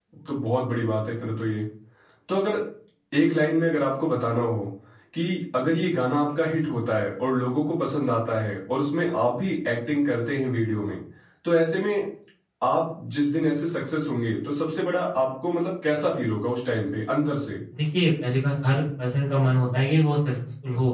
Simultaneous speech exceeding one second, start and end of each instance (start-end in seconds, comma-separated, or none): none